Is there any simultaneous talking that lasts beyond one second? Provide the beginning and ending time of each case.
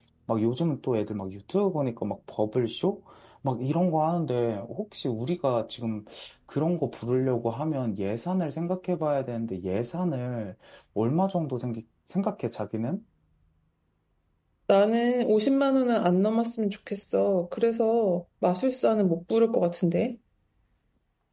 none

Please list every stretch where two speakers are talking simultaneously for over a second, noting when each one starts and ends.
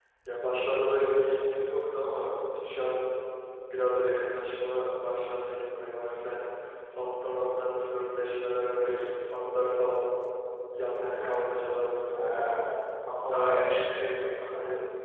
10.9-12.5

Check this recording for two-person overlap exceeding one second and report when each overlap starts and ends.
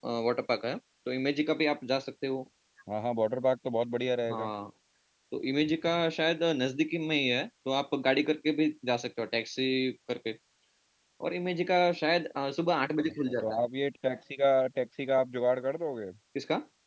none

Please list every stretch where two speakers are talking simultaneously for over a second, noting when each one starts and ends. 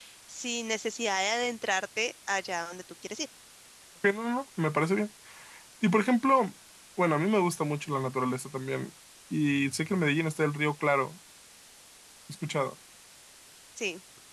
none

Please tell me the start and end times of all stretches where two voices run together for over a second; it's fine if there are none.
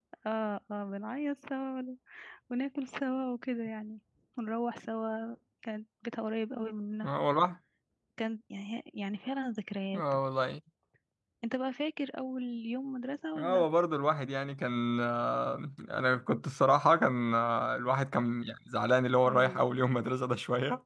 none

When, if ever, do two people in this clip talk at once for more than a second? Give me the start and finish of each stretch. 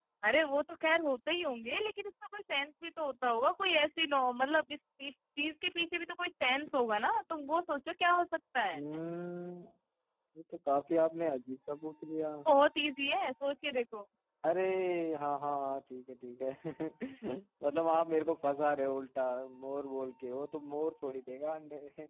none

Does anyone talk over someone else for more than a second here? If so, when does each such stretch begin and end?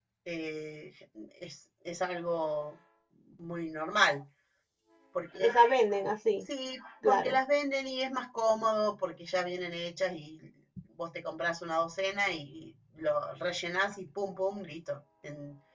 none

